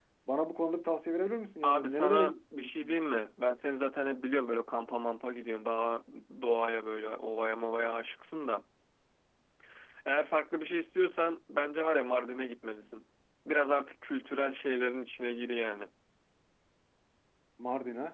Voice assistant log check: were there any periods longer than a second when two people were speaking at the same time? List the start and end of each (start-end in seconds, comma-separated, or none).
1.6-3.0